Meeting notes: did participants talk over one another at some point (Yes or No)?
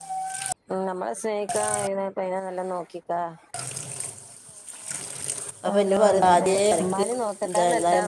Yes